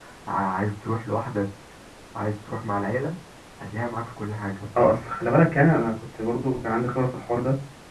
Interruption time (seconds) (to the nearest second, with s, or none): none